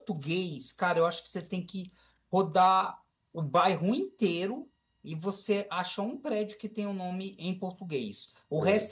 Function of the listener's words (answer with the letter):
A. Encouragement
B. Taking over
A